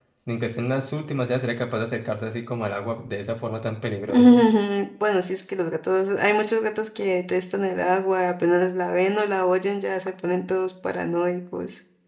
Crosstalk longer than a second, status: none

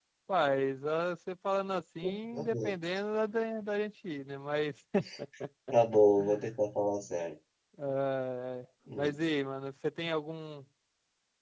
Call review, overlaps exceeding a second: none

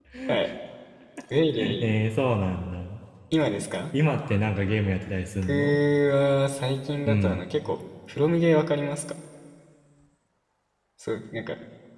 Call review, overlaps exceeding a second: none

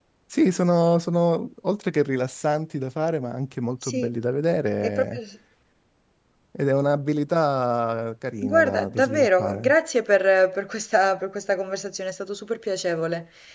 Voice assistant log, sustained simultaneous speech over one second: present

